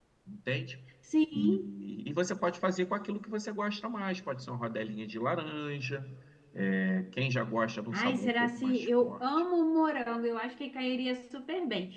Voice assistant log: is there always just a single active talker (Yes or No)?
No